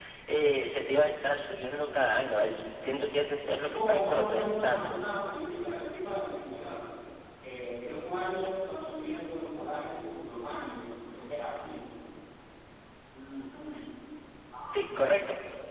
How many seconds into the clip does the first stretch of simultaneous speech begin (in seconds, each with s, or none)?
3.6 s